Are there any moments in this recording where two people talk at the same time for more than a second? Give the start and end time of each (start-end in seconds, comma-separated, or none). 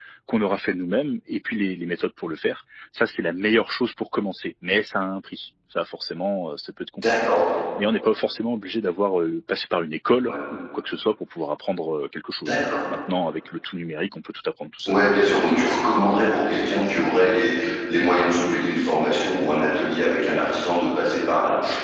none